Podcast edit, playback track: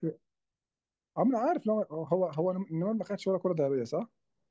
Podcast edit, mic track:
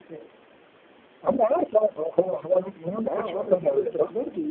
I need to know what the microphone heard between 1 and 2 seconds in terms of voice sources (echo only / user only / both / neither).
echo only